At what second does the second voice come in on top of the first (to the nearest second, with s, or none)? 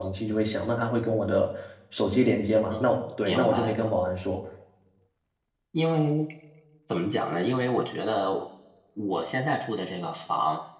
3 s